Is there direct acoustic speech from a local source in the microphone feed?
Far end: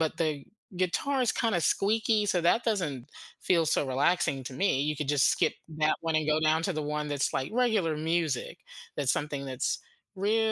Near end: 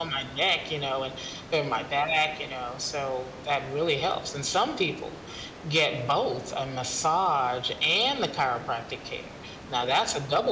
Yes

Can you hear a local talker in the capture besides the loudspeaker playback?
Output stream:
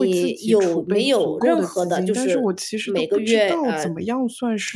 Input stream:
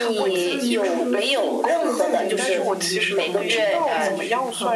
Yes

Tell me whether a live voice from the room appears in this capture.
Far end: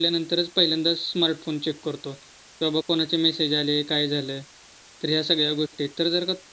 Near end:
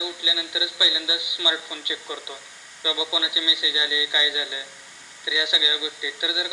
No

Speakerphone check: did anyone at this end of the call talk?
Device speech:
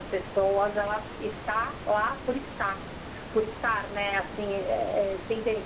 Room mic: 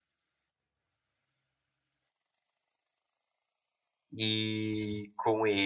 Yes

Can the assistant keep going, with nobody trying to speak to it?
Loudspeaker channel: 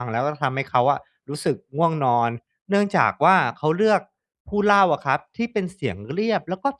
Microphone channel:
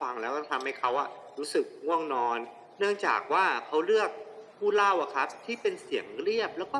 Yes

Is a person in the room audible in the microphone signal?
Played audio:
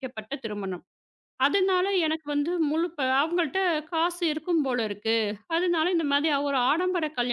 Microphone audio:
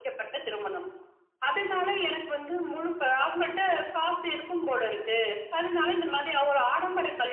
No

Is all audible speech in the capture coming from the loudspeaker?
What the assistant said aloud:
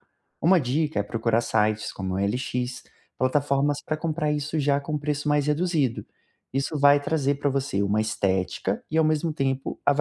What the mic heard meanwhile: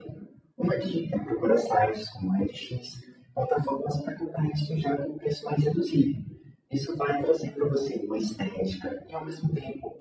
Yes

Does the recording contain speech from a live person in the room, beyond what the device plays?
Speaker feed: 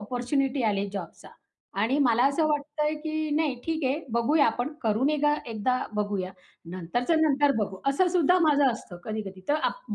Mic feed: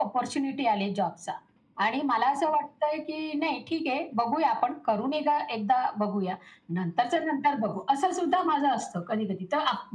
No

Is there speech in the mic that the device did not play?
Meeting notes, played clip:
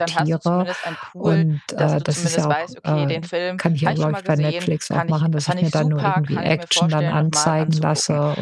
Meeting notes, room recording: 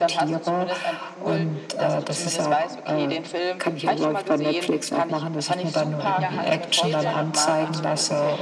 Yes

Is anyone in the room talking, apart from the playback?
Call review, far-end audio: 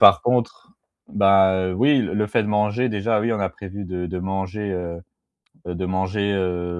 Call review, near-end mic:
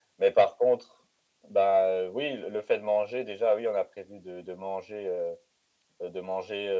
No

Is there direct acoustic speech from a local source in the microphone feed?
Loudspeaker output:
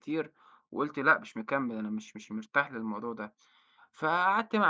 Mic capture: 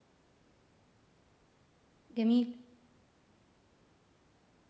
Yes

